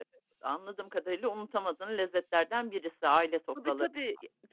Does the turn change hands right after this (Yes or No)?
Yes